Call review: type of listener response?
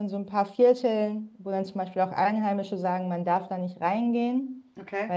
listening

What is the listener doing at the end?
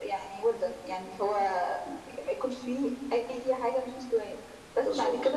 listening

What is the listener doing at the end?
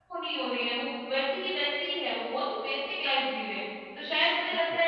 listening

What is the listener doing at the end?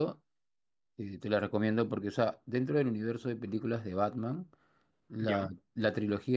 listening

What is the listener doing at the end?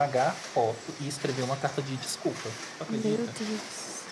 taking over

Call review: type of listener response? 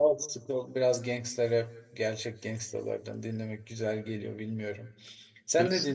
taking over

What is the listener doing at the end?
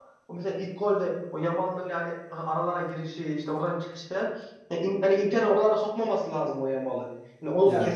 listening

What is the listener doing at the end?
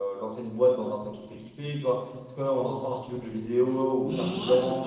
taking over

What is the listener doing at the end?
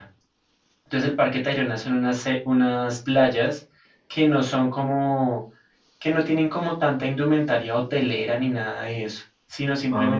listening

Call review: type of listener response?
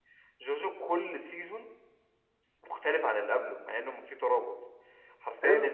listening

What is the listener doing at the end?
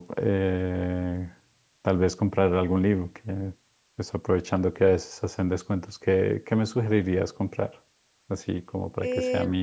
taking over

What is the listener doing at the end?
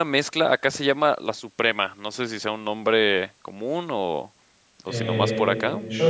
taking over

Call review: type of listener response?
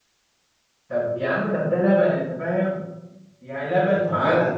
listening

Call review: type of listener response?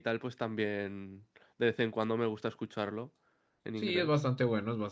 taking over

